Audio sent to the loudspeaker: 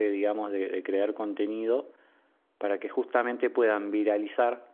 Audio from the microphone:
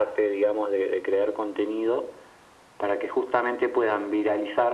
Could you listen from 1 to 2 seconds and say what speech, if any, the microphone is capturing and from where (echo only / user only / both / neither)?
echo only